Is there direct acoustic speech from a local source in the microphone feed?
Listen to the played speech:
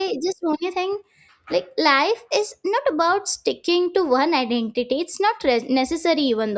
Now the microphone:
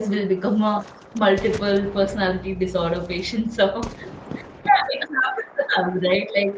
Yes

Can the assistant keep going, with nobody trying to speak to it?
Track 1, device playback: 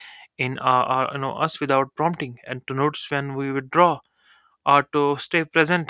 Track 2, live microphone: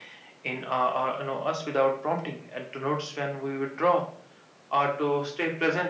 Yes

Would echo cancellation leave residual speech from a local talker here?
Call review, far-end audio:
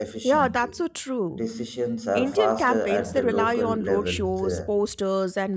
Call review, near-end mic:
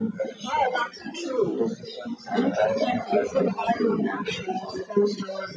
No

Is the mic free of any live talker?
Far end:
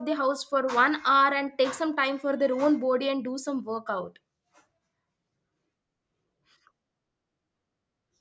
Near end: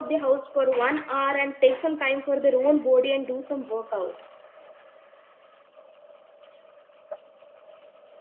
Yes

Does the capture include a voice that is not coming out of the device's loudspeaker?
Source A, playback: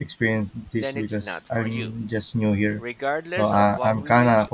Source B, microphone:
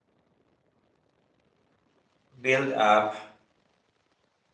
Yes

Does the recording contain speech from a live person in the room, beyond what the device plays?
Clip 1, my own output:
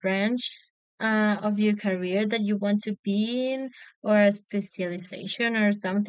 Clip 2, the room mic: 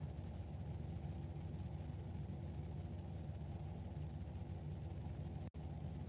No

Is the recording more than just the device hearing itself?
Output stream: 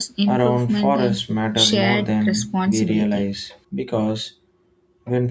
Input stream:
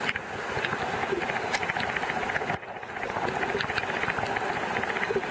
No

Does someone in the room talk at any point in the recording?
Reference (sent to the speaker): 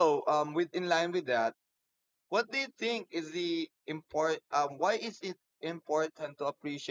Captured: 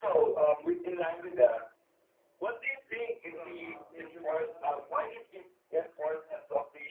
Yes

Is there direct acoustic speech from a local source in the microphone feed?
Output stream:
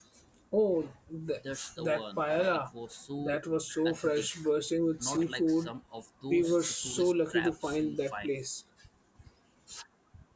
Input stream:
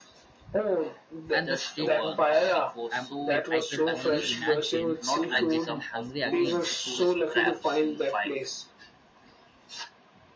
Yes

